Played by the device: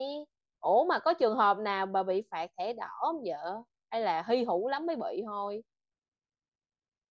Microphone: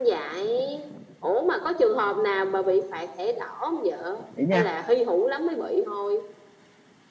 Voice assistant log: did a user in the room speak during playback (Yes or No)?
Yes